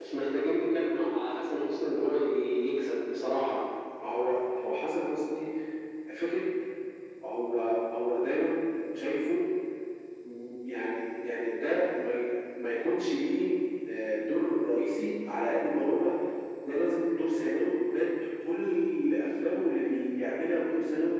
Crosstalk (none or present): none